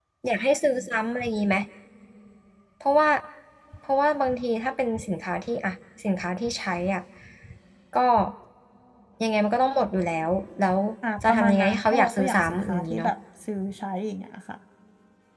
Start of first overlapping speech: 11.3 s

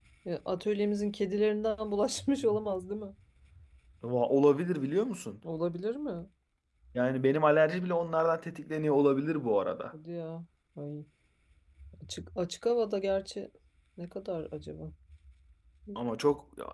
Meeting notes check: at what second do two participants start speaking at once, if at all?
none

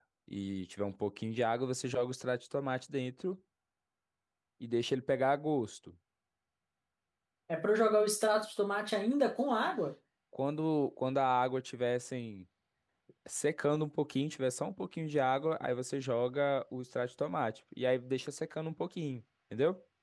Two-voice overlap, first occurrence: none

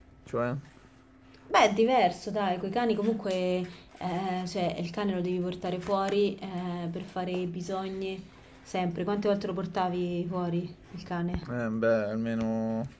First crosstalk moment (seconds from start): none

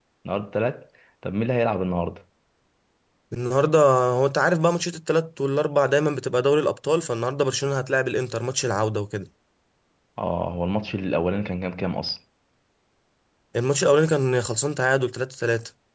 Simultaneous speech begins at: none

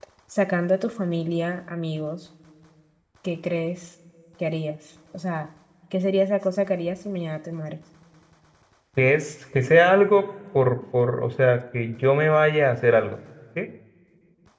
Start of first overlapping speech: none

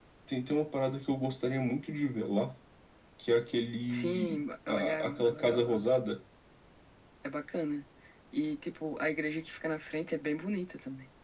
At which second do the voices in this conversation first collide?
3.9 s

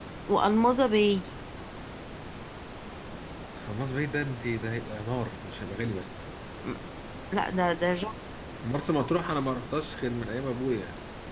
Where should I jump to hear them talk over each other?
none

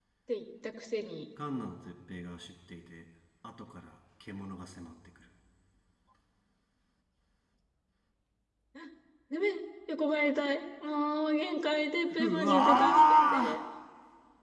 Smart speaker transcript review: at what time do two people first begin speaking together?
12.1 s

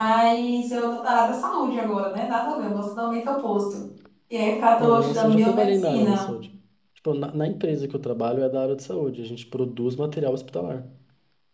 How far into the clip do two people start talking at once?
4.8 s

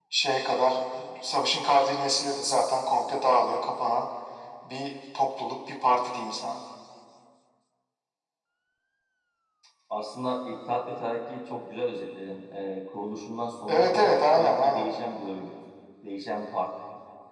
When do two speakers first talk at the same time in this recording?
13.7 s

